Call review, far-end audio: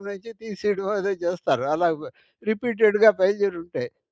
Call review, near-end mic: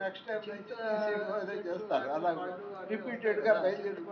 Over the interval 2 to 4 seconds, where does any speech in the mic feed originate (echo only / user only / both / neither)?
both